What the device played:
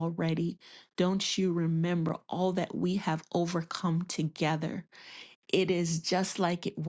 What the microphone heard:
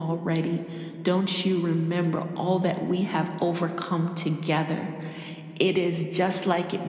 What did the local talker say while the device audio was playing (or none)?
none